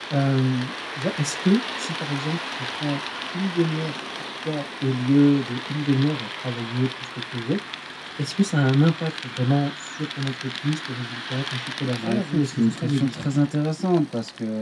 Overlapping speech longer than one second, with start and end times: 11.9-13.2

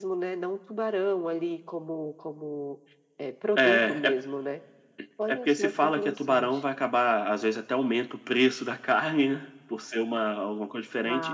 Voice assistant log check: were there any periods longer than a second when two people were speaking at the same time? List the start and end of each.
5.3-6.6

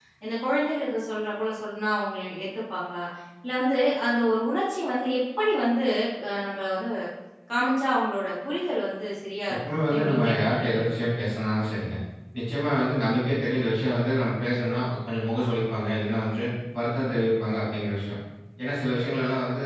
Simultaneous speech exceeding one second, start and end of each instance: 9.7-11.0

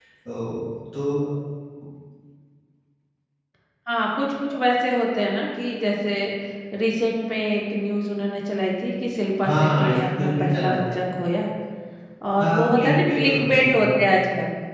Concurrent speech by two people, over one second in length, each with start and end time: 9.4-10.8, 12.4-13.9

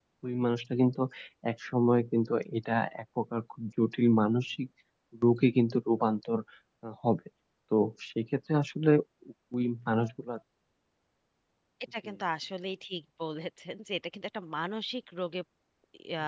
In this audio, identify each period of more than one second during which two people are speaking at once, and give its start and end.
none

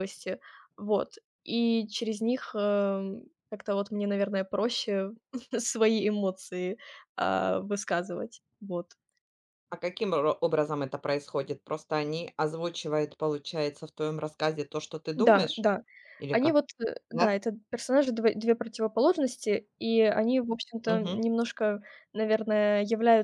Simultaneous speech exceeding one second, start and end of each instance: none

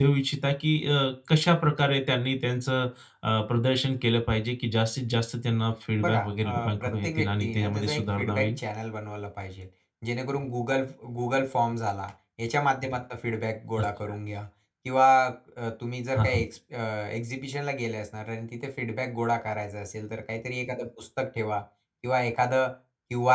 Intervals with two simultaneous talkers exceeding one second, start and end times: 6.0-8.5

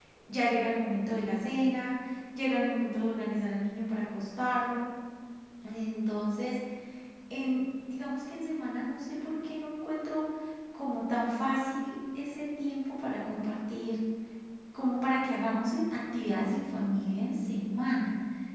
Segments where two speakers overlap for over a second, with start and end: none

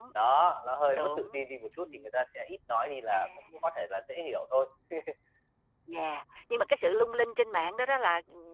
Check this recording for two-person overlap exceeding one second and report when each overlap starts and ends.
none

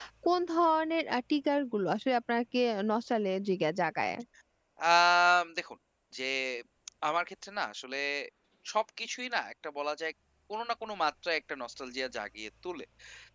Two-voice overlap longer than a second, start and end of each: none

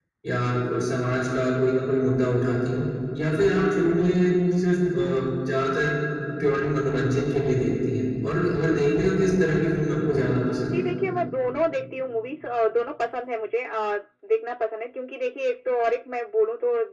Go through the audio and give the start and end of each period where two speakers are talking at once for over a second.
none

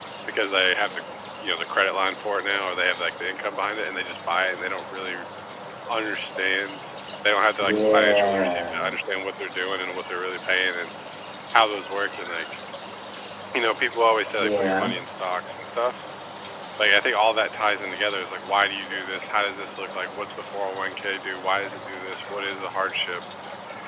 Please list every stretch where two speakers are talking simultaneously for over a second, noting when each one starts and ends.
7.6-8.9

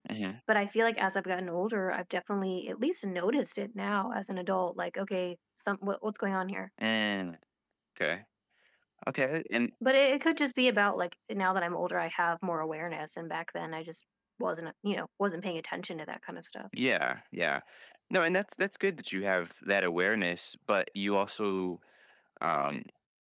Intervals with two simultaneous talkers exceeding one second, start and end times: none

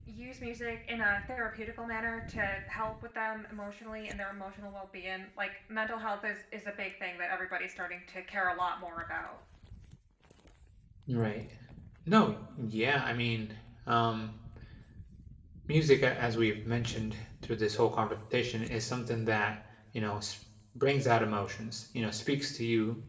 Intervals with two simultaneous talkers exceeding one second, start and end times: none

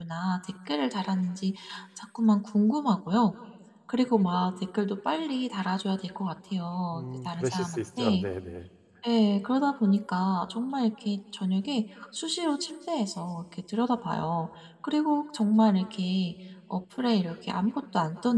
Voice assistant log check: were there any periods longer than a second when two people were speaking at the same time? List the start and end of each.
6.9-8.2

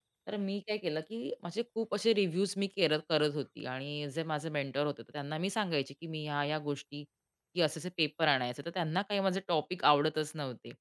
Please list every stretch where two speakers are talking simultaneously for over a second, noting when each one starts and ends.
none

